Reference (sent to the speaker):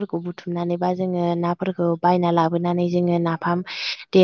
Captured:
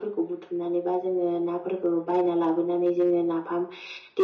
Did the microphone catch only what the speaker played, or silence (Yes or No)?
Yes